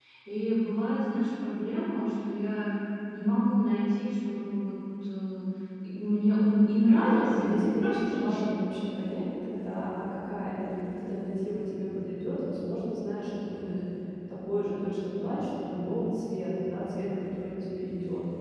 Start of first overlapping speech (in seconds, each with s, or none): 6.8 s